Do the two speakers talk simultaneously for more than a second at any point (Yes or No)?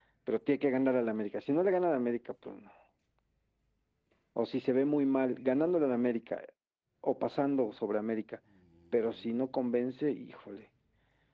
No